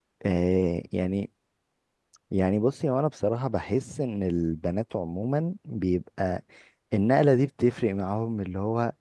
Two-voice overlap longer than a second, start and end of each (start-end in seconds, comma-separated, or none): none